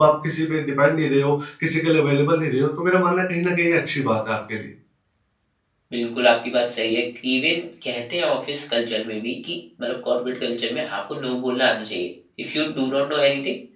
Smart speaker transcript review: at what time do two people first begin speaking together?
none

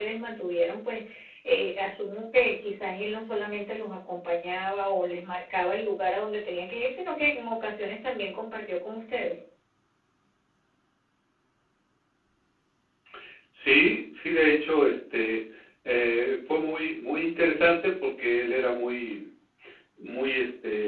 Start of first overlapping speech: none

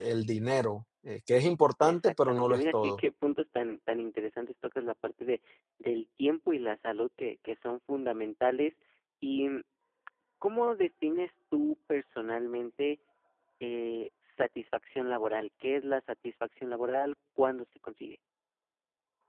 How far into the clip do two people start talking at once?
1.8 s

